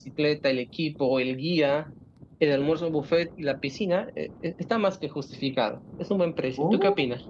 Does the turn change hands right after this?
Yes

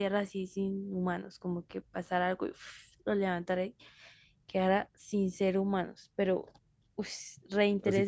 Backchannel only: No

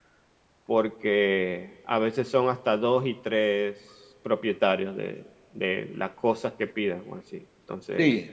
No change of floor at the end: No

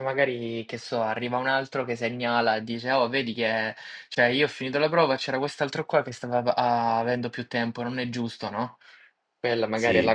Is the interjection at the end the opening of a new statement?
No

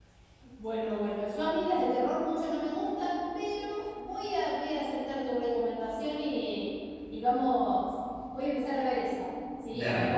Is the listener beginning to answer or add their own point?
No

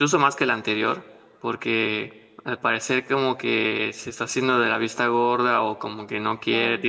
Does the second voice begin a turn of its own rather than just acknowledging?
No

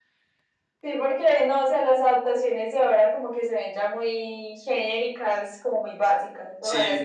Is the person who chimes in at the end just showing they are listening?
No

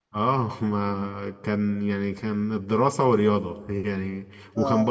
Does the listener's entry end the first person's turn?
No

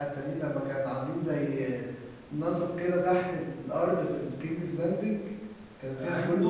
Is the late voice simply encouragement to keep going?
No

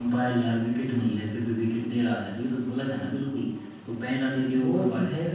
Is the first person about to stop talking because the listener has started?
Yes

